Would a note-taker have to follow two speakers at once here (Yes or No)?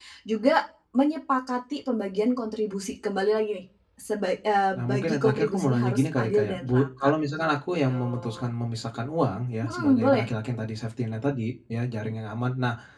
Yes